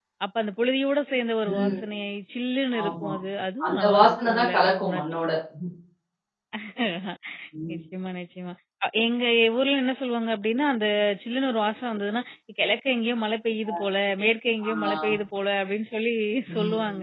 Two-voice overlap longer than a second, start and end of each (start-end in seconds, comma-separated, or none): 3.6-5.0